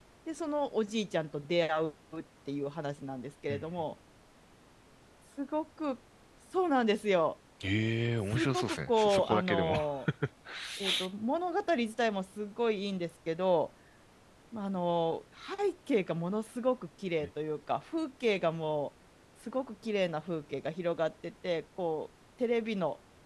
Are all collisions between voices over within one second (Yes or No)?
No